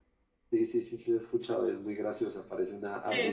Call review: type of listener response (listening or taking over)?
taking over